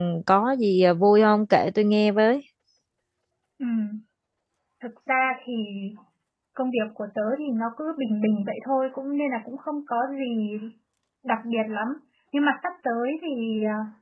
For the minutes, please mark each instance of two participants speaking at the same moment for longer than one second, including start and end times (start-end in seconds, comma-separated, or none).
none